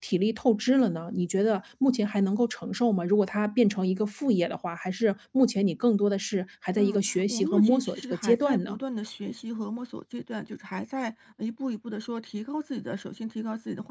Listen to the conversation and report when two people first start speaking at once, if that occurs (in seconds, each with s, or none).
6.8 s